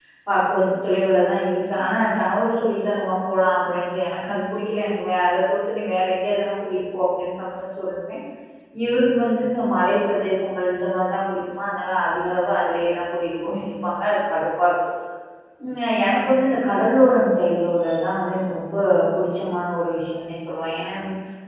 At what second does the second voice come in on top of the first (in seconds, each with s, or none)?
none